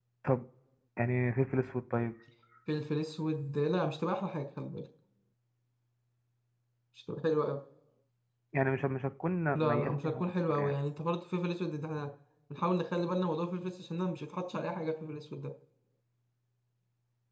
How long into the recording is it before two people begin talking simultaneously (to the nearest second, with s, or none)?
10 s